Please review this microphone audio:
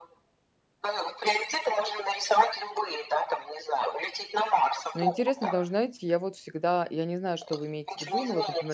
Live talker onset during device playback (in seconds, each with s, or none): 4.9 s